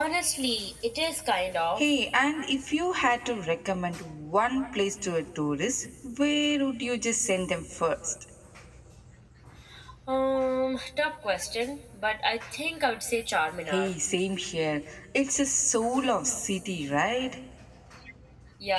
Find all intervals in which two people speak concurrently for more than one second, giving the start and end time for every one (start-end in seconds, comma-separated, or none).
none